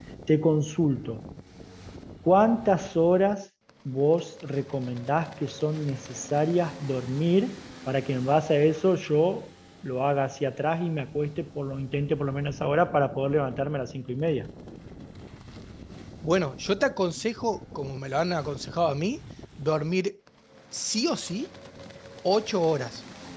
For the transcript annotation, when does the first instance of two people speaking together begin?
none

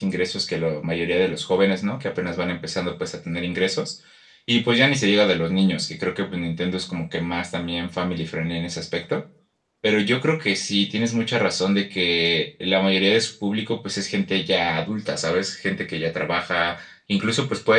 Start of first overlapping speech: none

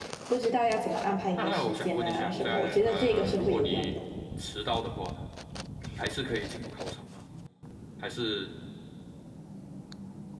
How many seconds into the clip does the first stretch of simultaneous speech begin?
1.4 s

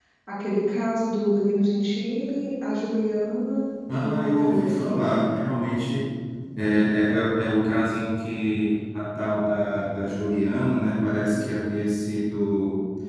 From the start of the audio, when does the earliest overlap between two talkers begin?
3.9 s

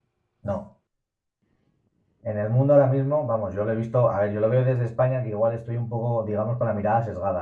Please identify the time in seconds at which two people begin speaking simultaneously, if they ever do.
none

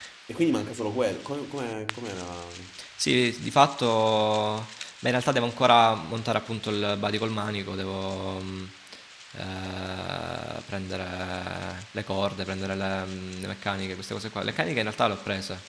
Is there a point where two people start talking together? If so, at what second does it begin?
none

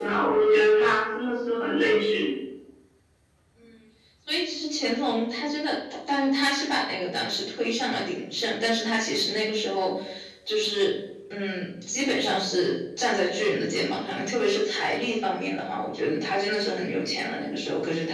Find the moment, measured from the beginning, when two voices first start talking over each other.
none

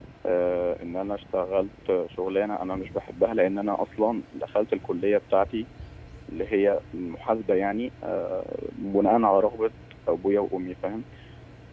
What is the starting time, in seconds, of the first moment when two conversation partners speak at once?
none

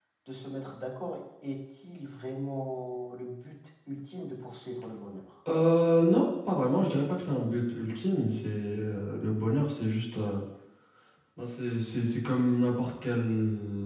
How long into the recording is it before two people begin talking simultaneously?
none

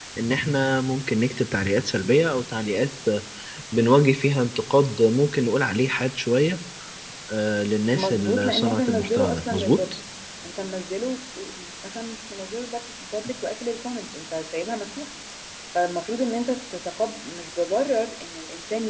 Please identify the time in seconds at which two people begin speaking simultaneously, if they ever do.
7.9 s

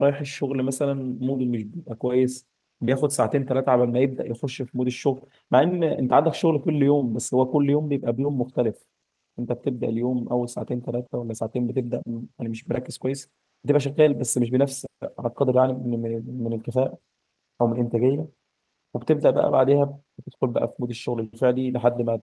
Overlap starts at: none

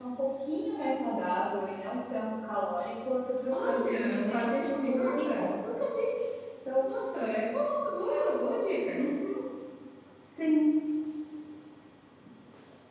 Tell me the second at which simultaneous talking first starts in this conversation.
3.5 s

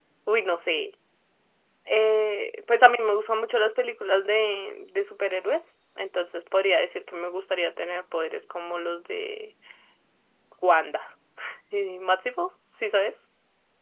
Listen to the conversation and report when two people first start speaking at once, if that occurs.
none

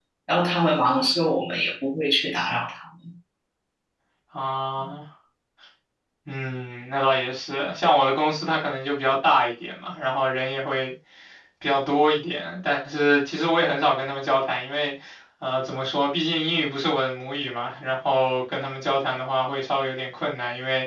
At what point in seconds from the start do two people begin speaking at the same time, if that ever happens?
none

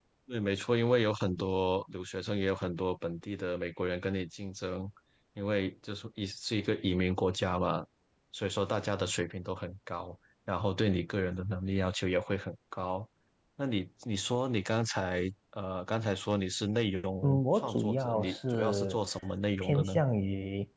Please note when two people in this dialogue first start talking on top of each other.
17.2 s

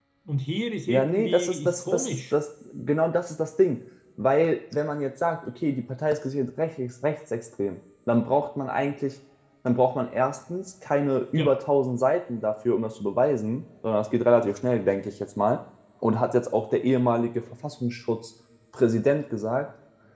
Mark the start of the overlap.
0.9 s

